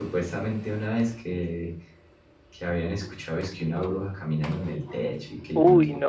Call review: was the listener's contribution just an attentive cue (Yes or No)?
No